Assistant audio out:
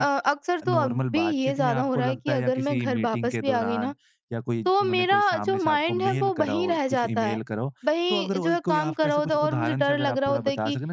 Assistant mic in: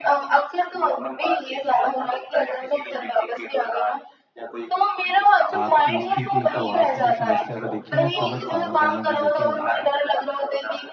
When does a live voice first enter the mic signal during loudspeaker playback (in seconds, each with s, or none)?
5.5 s